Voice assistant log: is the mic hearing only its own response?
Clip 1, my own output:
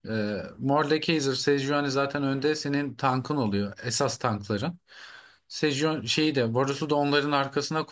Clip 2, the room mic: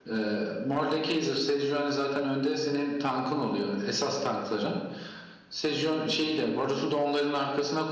Yes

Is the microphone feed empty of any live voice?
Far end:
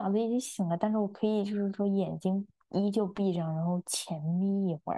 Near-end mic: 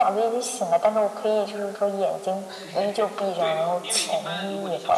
No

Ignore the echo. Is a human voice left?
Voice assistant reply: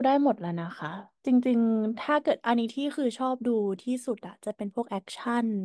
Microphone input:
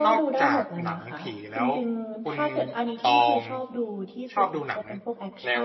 Yes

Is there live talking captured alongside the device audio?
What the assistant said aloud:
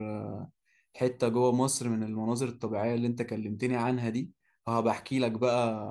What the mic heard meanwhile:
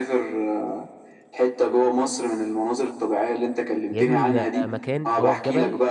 Yes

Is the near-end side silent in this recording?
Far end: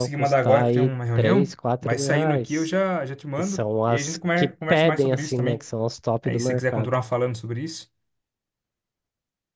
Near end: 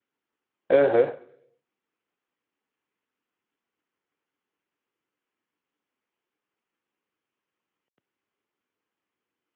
No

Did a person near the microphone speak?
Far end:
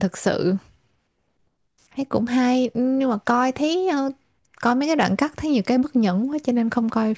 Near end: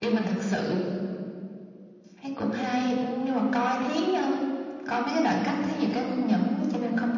No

